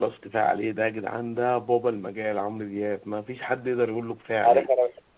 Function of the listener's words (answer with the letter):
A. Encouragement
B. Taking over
B